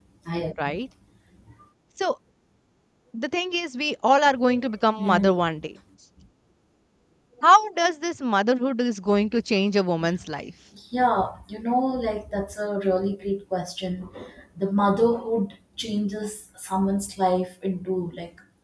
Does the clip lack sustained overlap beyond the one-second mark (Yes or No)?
Yes